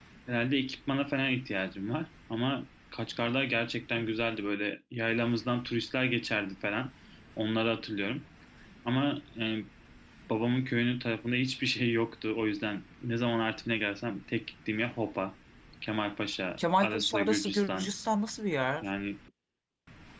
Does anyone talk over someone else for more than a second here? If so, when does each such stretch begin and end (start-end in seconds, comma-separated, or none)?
16.6-17.9